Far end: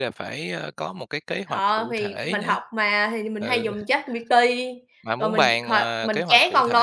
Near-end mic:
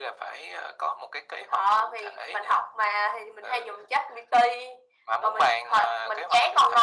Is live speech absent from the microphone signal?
Yes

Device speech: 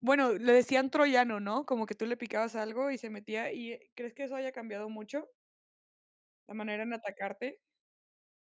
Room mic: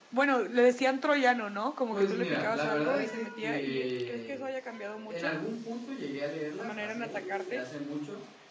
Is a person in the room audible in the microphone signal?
Yes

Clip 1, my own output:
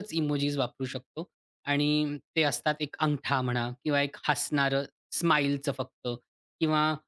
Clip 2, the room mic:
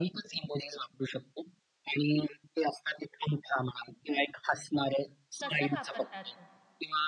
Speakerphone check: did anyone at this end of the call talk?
Yes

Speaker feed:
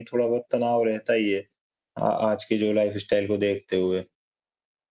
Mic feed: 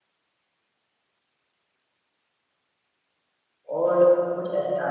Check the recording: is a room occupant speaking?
Yes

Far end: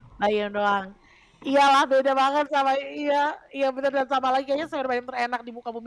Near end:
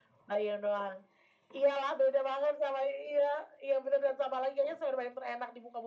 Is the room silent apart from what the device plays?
Yes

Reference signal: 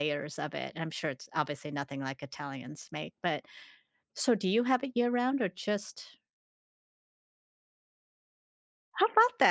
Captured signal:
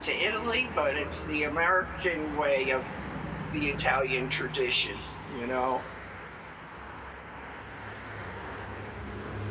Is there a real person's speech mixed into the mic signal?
Yes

